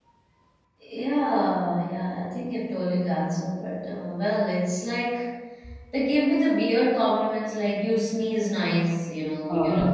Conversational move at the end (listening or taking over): listening